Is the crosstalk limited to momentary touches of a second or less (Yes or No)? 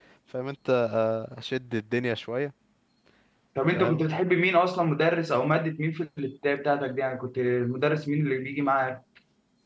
Yes